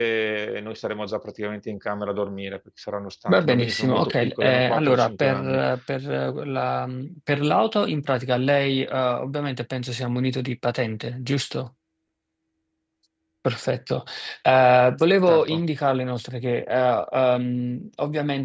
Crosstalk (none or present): present